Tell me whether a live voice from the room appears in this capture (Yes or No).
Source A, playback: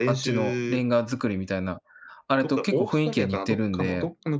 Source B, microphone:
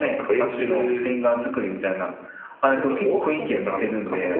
No